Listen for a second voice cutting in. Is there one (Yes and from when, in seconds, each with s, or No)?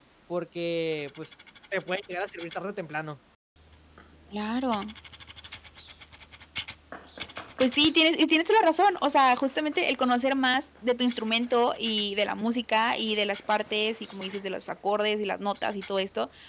No